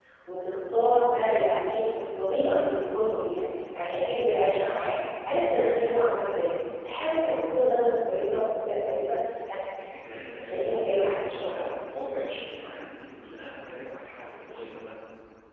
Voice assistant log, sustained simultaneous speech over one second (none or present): present